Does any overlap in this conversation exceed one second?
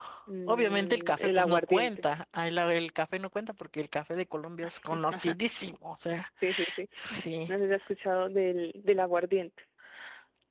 Yes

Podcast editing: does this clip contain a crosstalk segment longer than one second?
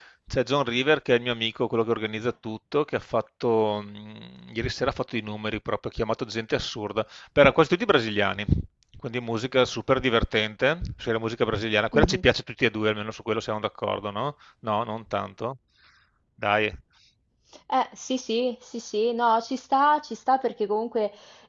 No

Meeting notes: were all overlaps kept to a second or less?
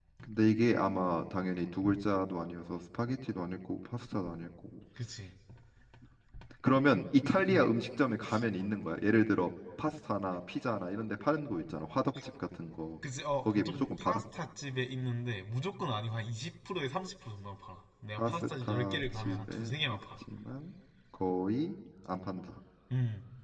No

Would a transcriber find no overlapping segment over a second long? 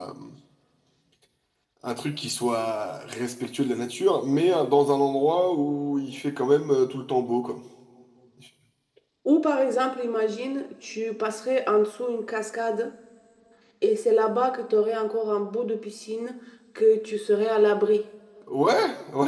Yes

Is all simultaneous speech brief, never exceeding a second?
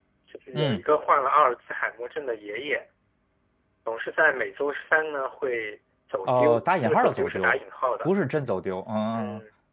No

